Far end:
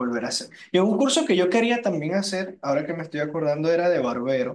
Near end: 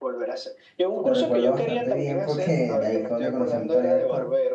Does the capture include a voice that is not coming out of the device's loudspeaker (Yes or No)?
Yes